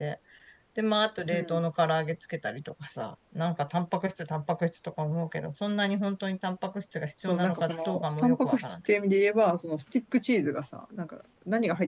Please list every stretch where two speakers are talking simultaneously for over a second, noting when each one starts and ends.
7.2-8.8

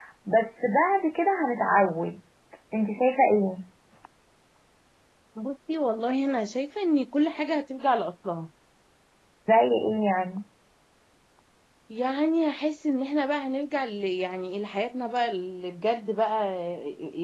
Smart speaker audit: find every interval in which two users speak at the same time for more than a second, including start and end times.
none

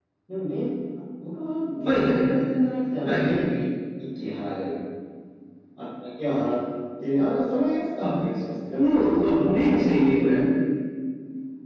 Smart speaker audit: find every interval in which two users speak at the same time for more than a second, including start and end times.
8.8-10.2

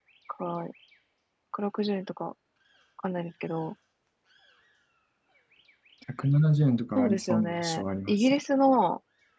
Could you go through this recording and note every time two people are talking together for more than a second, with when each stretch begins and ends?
7.0-8.4

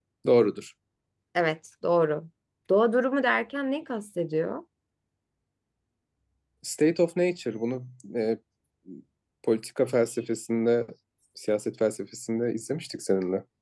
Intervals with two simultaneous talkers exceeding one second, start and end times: none

